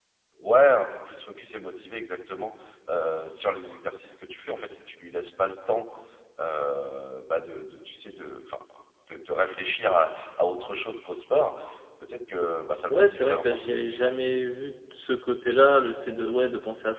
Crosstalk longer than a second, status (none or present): present